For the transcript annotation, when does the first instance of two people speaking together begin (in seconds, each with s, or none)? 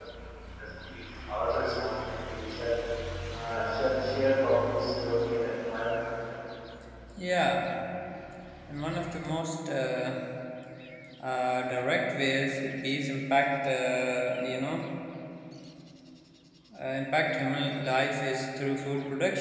none